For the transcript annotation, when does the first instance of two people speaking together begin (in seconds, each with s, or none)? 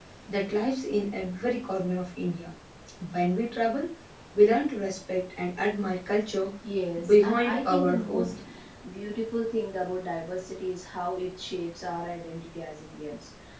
7.0 s